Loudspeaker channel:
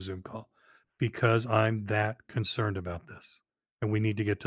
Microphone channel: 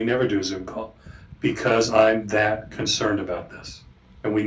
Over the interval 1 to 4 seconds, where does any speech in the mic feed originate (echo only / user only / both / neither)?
echo only